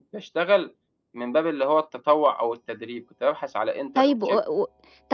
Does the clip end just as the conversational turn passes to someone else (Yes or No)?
Yes